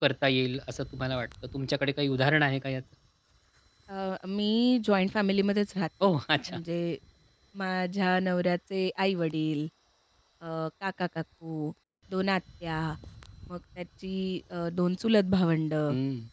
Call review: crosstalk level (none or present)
none